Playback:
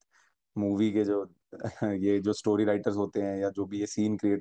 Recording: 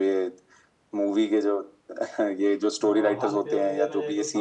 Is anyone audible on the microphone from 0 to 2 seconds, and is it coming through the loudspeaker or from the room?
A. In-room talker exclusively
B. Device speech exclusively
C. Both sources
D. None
B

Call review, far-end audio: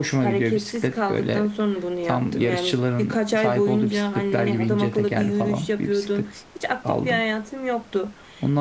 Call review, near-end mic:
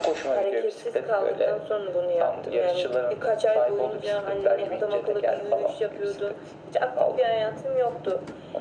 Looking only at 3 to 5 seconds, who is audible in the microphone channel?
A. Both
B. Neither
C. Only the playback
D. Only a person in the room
C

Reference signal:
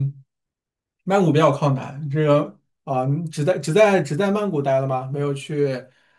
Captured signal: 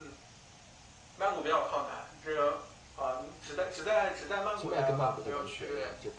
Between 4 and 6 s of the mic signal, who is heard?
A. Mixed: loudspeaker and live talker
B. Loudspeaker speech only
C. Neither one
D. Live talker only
A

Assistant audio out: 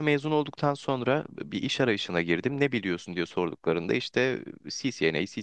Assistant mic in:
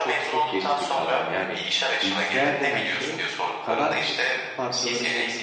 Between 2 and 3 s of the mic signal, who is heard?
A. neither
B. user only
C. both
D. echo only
C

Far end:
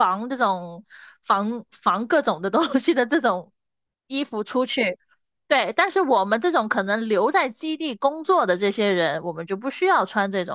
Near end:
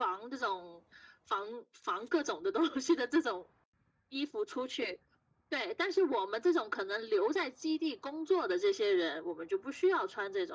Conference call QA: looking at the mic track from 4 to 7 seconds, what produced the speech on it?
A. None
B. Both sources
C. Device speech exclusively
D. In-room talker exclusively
C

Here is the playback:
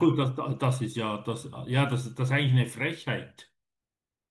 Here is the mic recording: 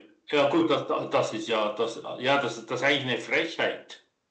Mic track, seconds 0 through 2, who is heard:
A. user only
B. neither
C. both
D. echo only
D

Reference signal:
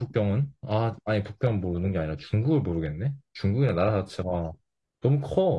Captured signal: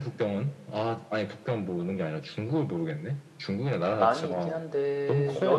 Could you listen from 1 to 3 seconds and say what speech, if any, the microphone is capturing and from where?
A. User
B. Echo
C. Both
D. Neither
B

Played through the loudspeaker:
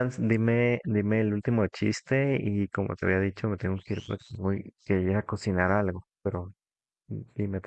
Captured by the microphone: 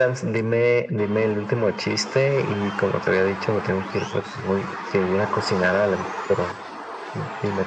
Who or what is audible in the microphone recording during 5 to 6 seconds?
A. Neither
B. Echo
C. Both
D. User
B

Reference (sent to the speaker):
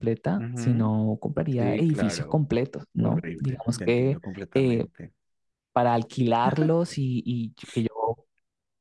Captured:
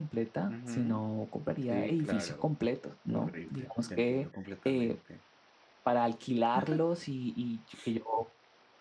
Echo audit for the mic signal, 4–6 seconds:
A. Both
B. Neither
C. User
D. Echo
D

